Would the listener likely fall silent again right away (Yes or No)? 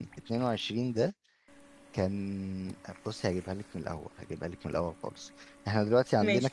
Yes